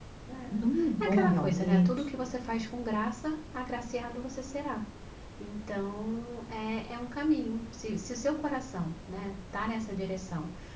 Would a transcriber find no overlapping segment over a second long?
No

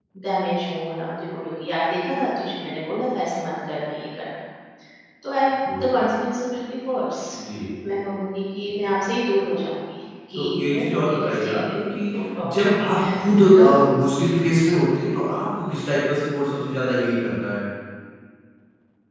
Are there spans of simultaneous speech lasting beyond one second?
Yes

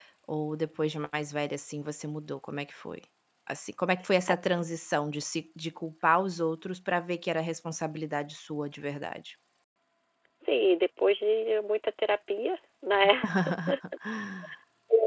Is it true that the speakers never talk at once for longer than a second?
Yes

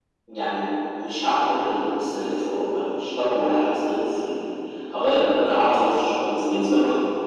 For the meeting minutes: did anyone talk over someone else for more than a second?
No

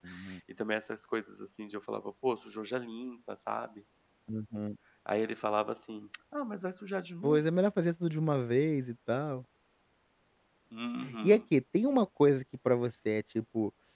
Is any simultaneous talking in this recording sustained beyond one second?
No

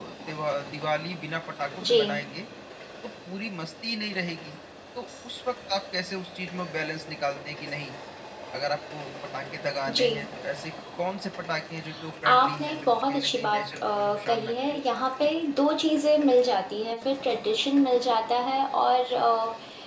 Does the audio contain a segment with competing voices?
Yes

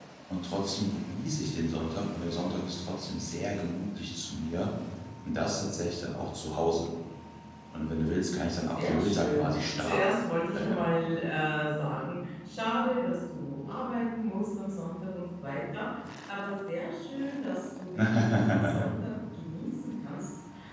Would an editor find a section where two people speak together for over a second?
Yes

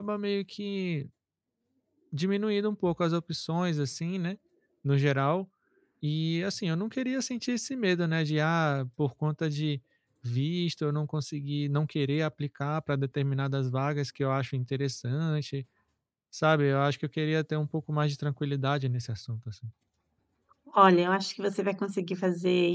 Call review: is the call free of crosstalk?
Yes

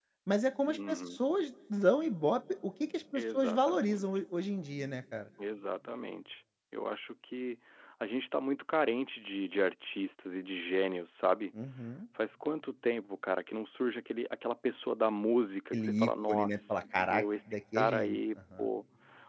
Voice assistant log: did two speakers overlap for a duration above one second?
Yes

